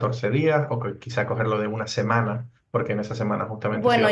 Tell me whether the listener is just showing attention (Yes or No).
No